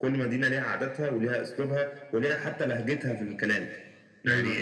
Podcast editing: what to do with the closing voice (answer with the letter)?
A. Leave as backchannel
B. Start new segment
A